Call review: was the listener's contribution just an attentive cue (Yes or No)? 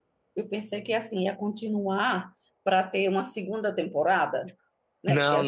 Yes